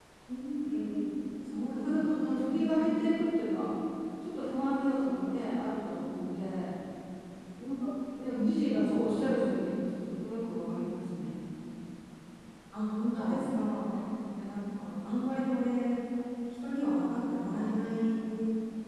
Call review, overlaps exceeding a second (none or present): present